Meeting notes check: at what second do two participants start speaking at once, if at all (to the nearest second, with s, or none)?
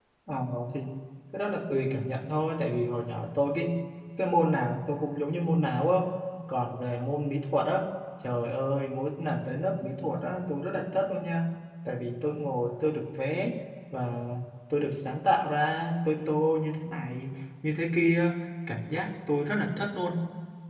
none